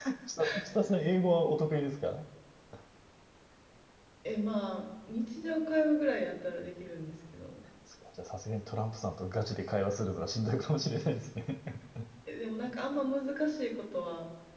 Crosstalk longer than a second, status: none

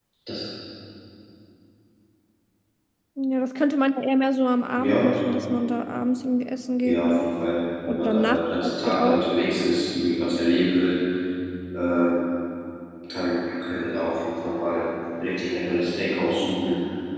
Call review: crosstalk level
present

